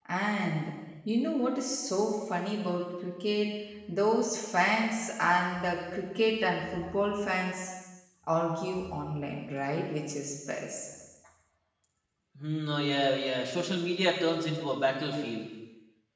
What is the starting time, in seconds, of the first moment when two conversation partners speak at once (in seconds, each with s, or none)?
none